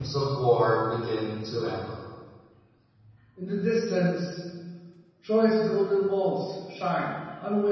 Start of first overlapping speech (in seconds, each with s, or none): none